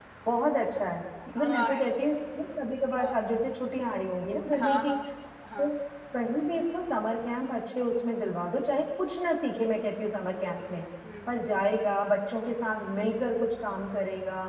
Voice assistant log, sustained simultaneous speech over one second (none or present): none